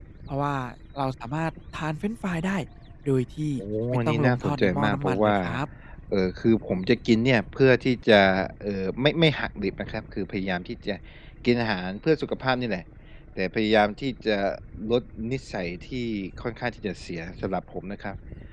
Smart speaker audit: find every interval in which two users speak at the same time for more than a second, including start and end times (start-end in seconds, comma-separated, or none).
4.1-5.3